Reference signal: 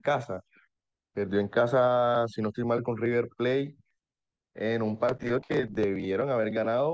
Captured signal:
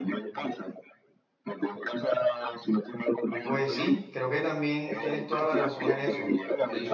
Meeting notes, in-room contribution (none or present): present